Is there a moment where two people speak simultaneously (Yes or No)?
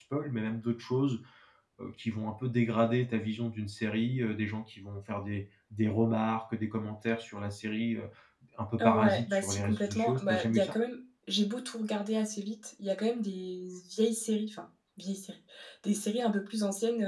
Yes